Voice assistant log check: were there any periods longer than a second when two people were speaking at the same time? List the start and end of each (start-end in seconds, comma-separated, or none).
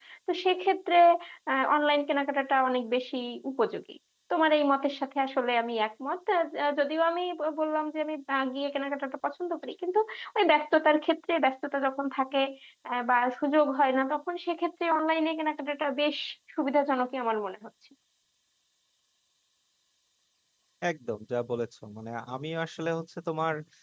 none